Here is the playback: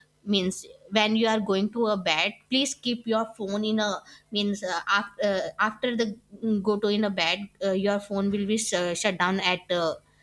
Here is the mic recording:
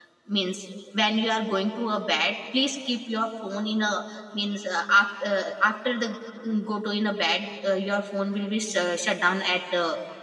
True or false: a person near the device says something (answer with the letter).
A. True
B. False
B